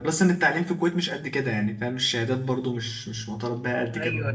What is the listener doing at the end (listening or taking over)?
taking over